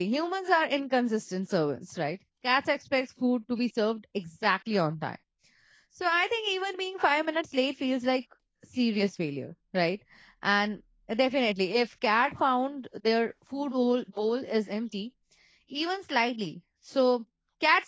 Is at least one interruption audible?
No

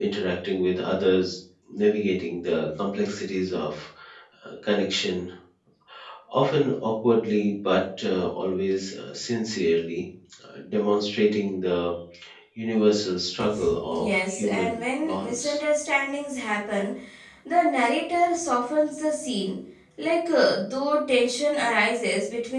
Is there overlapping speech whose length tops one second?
Yes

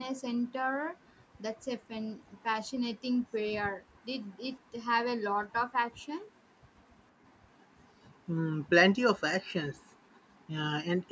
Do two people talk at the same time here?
No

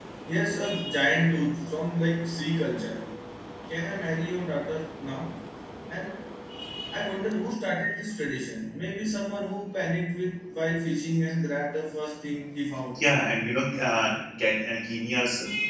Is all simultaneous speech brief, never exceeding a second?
Yes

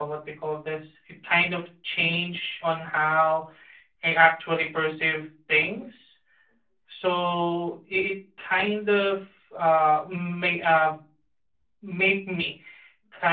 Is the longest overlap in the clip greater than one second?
No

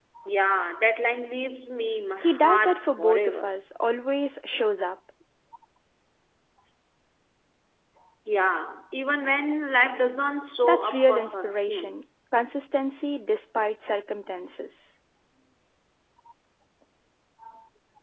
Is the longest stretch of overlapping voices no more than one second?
No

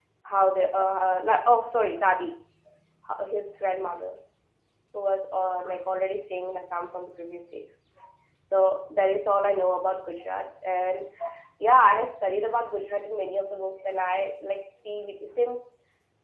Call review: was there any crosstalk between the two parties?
No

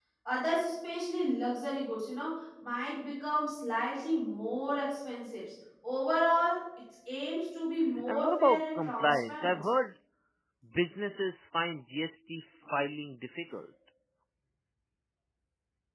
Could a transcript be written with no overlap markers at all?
No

